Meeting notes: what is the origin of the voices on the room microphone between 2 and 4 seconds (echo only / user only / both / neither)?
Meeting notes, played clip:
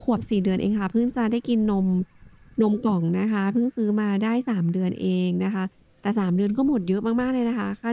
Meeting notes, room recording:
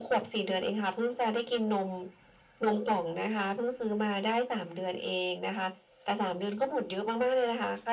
echo only